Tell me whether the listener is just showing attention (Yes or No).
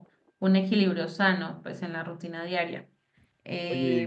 No